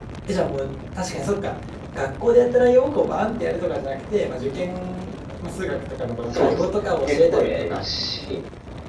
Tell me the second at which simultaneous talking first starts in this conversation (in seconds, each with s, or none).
6.3 s